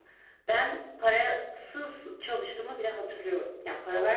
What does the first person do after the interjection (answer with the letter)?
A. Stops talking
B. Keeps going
B